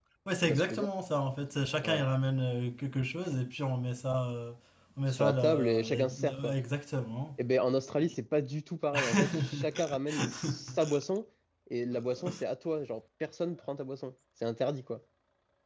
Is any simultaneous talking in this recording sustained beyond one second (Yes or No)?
Yes